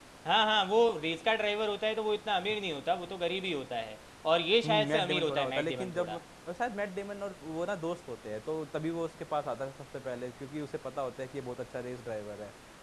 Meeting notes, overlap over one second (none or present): present